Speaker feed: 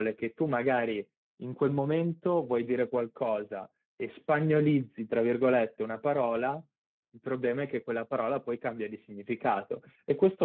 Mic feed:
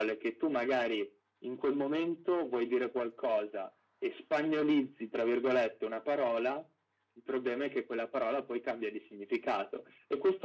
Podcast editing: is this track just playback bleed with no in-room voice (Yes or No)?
Yes